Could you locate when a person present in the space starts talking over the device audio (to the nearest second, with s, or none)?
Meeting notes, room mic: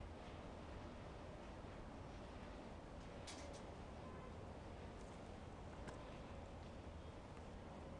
none